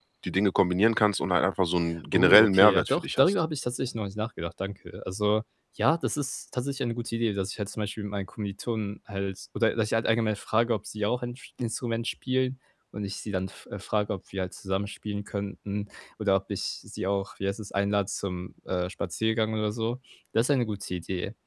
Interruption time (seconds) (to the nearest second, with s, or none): 2 s